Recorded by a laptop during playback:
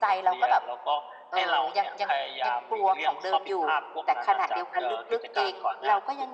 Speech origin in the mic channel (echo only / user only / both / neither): echo only